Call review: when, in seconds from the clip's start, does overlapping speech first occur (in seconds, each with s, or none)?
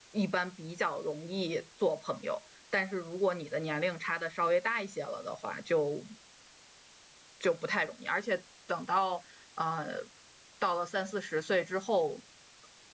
none